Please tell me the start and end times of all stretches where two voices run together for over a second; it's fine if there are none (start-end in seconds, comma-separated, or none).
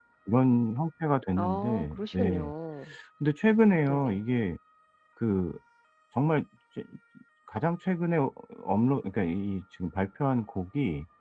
1.3-2.5